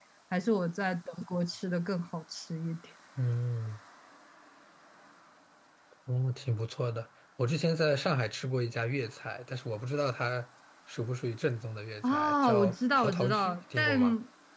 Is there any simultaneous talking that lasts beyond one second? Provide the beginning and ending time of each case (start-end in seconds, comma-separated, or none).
12.1-14.0